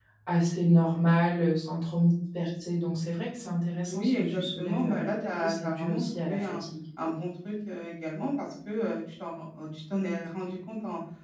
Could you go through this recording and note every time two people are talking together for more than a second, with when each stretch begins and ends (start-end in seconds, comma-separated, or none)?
3.9-6.6